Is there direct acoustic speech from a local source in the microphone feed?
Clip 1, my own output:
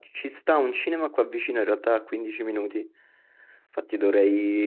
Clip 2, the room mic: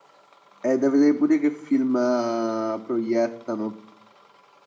Yes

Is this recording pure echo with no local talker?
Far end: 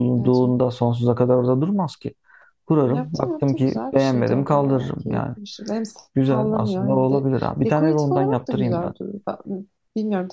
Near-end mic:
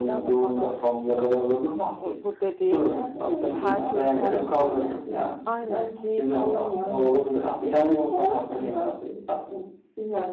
No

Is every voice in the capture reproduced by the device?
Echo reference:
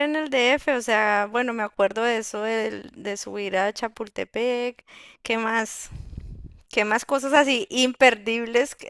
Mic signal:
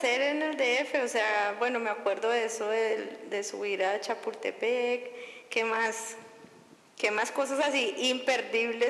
Yes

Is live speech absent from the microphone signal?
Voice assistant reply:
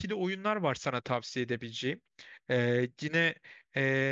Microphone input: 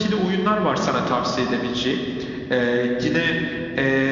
Yes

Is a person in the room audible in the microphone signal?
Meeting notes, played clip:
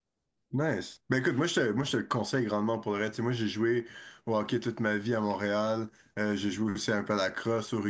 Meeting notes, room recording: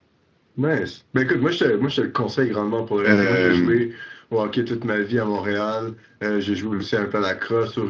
Yes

